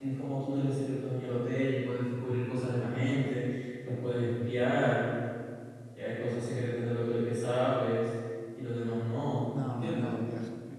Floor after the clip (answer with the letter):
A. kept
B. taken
B